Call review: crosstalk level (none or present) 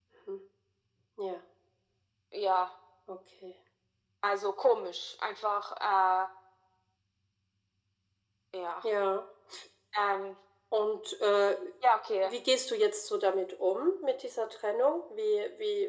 none